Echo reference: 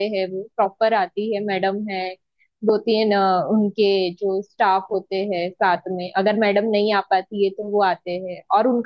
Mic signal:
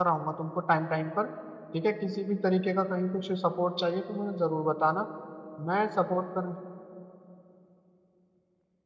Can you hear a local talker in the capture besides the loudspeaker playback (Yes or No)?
Yes